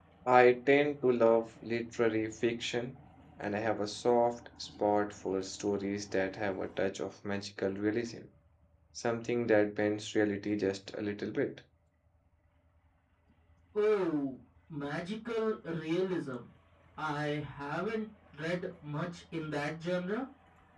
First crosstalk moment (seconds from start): none

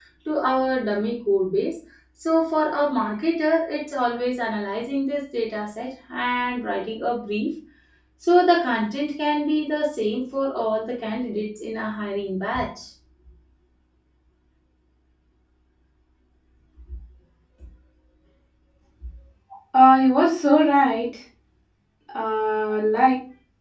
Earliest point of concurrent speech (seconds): none

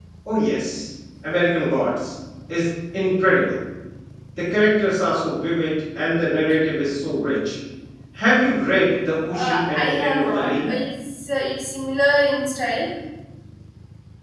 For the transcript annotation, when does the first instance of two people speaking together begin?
9.3 s

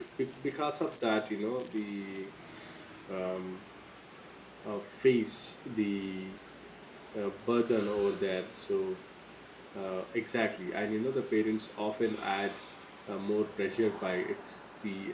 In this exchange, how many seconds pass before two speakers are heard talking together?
none

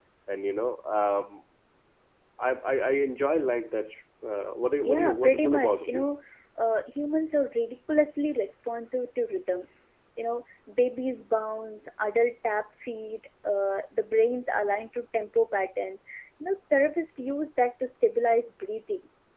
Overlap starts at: 4.8 s

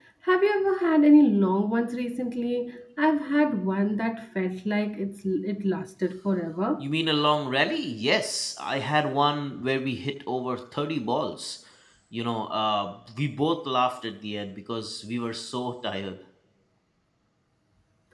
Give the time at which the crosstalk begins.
none

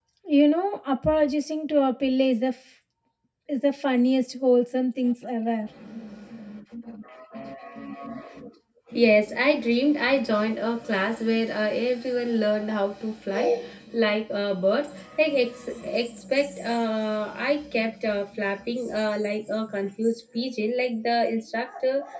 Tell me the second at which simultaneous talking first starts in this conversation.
none

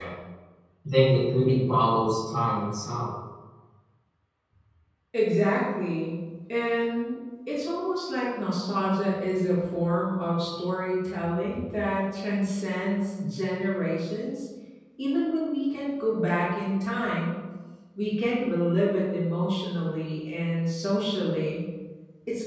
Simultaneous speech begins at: none

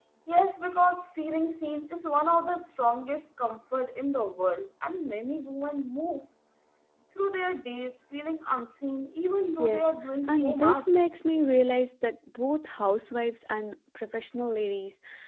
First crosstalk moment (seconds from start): 9.6 s

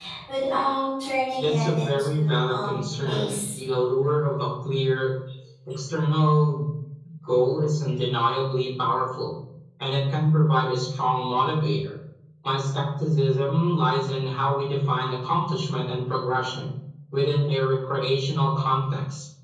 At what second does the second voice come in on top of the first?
1.4 s

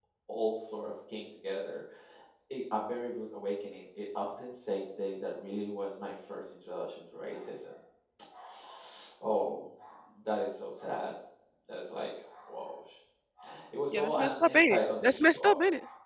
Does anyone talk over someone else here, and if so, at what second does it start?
13.9 s

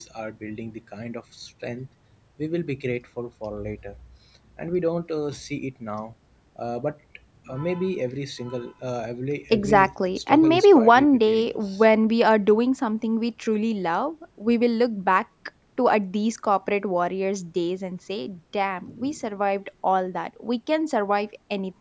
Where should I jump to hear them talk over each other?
9.5 s

